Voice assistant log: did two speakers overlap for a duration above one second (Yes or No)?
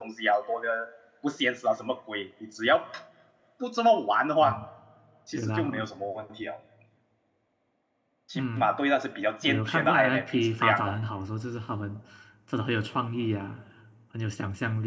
Yes